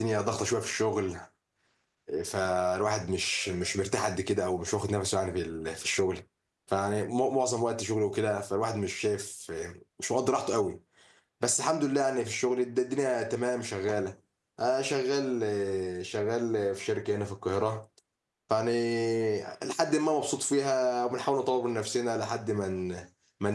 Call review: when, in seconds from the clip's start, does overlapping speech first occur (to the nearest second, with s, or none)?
none